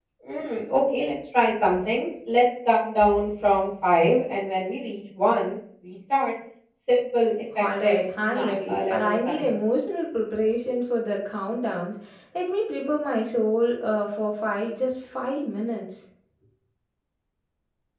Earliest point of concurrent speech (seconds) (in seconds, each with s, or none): 7.5 s